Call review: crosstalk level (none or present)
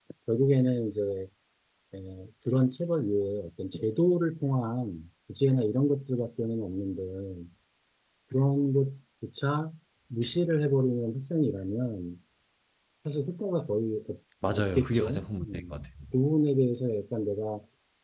present